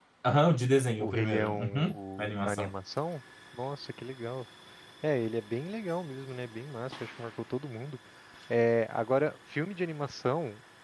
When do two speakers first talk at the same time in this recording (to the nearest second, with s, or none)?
1 s